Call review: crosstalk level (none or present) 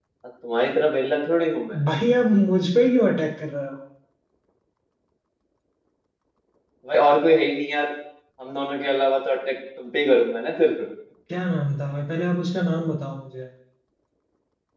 none